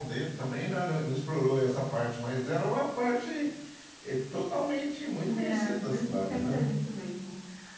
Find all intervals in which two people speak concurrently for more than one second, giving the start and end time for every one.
5.3-6.7

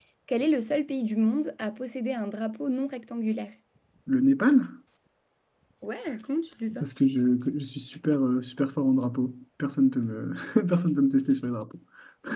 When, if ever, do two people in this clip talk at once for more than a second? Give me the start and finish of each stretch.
none

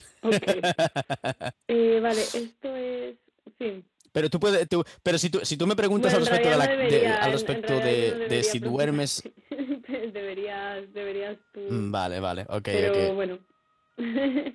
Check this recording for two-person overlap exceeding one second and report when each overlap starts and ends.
6.0-9.0

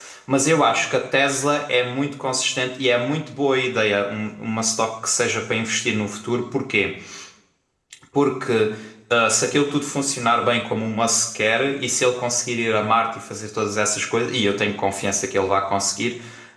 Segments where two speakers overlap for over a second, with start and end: none

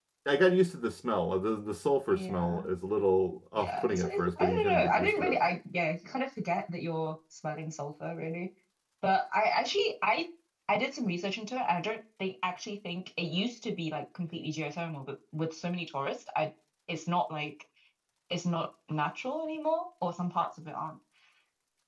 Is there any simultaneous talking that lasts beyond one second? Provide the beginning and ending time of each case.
3.5-5.4

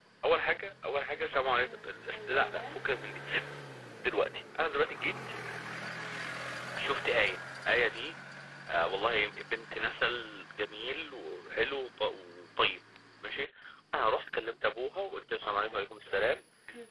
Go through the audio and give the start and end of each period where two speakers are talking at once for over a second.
1.6-2.8

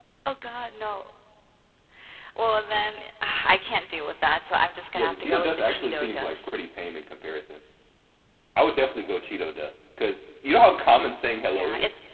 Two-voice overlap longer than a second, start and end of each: 4.9-6.5

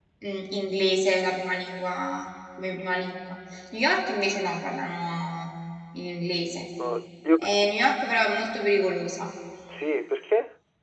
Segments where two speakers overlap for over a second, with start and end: none

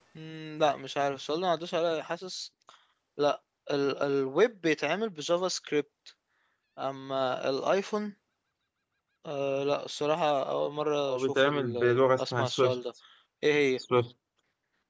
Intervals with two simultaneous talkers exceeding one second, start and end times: 11.1-12.8

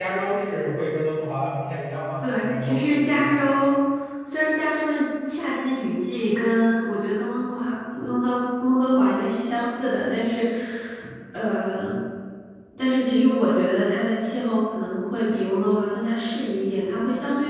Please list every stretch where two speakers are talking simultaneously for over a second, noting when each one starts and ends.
2.2-3.6

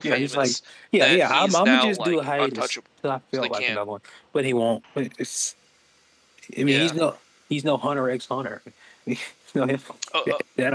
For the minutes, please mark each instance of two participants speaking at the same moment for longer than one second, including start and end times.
1.0-2.8

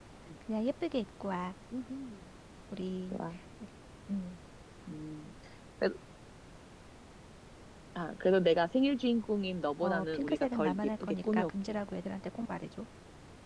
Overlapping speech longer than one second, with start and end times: 9.8-11.8

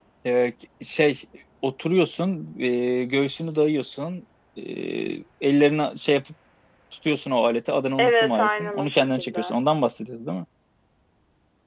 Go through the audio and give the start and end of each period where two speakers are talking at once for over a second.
8.0-9.6

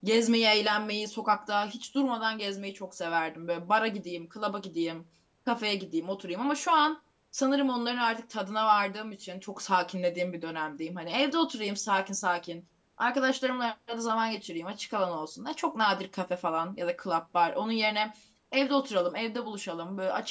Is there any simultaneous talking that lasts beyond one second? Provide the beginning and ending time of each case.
none

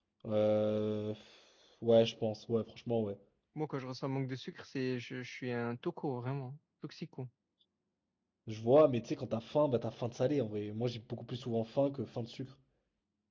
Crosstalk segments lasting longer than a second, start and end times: none

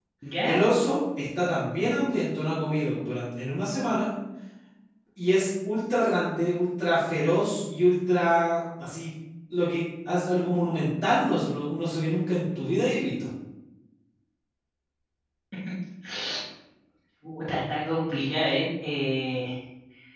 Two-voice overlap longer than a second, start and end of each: none

